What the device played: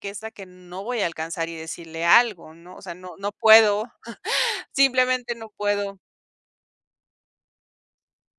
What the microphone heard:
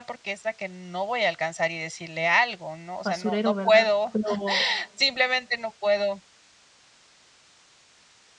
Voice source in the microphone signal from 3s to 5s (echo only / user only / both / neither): both